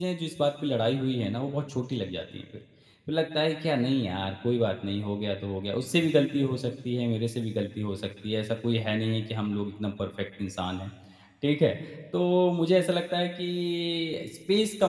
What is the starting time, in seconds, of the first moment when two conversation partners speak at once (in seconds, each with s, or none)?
none